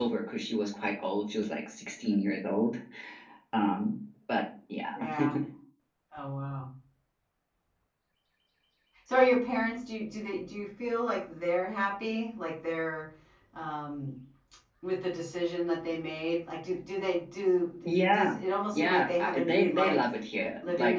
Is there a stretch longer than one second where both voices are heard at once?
Yes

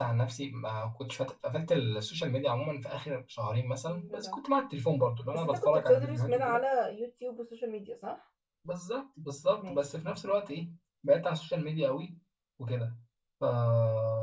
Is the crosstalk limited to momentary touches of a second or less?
No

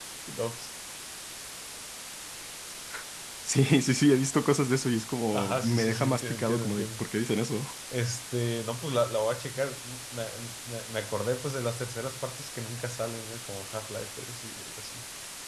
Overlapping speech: Yes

